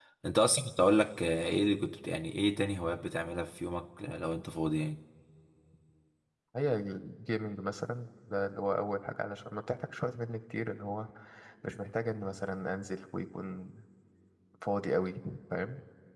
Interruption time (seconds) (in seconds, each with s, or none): none